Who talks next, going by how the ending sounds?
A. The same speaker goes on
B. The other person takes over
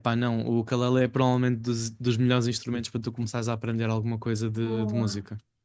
B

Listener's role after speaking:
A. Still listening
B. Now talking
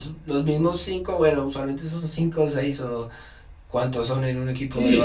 B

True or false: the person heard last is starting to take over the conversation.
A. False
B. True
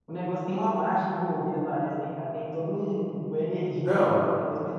A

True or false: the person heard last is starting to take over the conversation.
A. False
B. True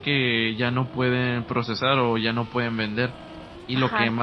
A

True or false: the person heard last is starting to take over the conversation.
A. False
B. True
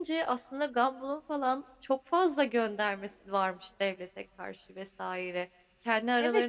B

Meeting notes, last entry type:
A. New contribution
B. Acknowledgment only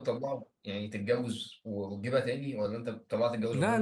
A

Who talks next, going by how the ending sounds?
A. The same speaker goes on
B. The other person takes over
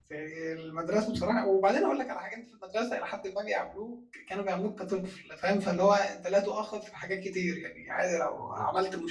A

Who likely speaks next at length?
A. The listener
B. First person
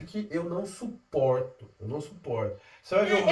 A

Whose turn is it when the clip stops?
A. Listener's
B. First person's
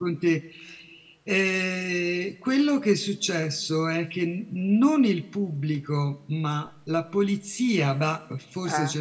B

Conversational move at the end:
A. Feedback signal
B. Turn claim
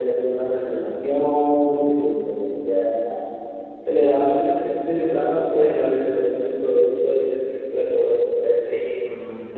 A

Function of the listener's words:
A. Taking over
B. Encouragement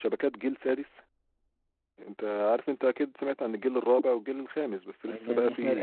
A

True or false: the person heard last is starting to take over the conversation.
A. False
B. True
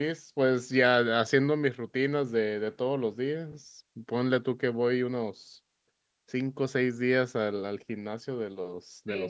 B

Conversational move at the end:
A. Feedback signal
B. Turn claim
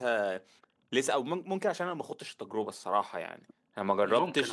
A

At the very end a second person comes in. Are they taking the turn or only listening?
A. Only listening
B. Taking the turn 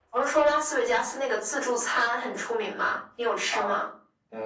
B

